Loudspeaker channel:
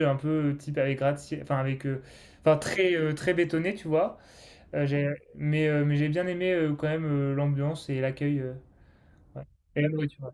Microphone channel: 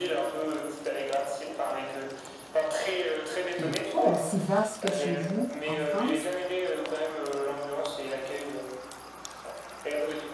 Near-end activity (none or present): present